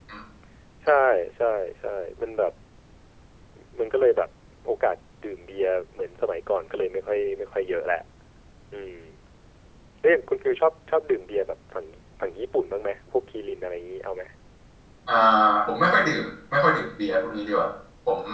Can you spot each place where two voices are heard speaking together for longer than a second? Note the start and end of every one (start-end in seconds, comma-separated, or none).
none